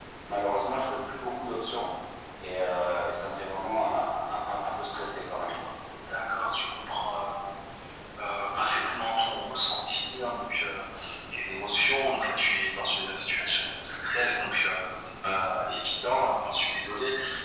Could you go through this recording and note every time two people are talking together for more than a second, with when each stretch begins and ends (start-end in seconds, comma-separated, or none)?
none